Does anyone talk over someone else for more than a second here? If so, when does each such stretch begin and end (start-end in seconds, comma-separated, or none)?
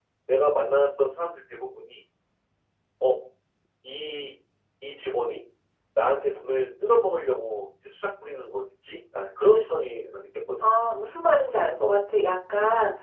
none